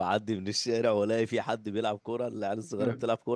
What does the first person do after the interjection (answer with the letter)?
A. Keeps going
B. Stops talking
A